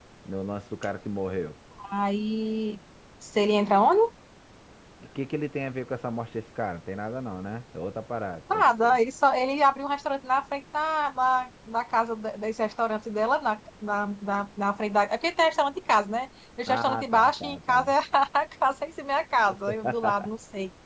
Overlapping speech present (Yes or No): Yes